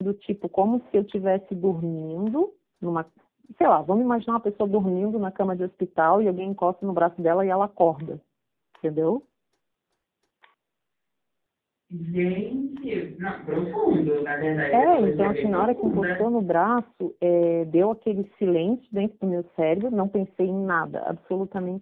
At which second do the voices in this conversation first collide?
14.7 s

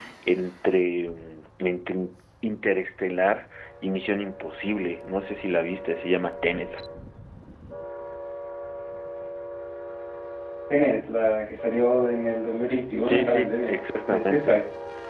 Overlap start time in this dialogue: 13.0 s

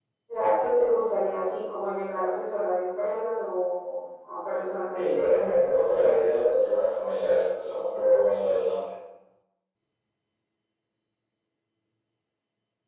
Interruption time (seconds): 4.9 s

